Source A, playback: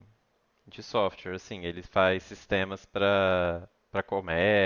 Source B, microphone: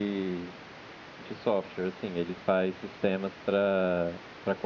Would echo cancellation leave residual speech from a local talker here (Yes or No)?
No